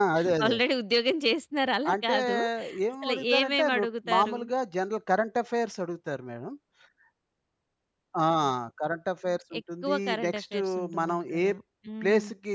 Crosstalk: present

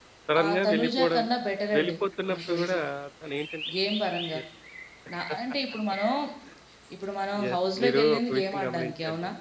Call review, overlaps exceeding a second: present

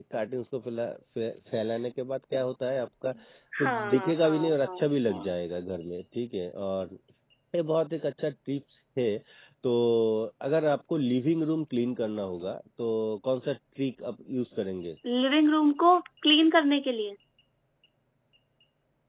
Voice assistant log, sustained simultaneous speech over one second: present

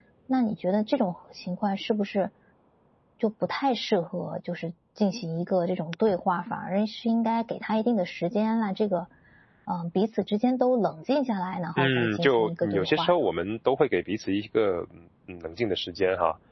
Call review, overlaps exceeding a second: present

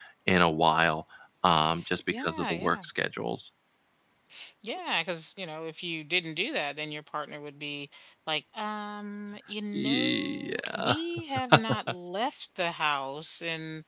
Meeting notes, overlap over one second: present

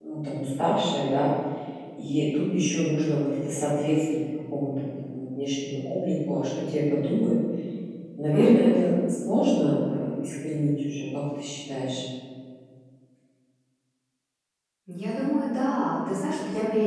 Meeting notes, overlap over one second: none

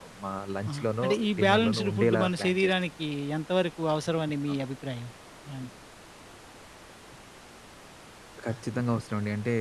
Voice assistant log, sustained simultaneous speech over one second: present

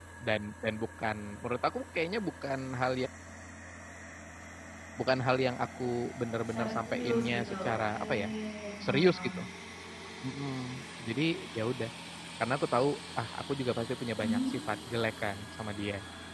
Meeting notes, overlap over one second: present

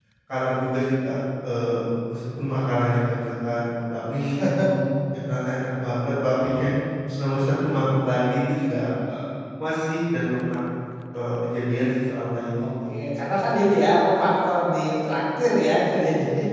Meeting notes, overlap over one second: none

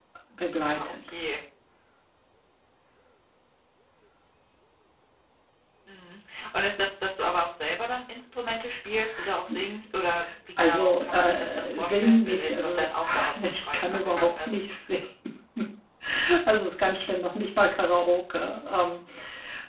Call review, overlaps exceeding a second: present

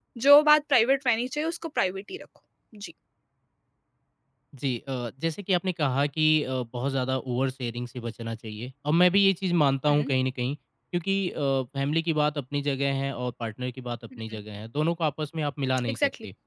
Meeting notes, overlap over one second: none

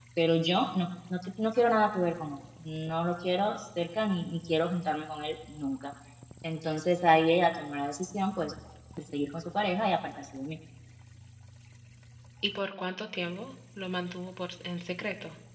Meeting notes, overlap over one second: none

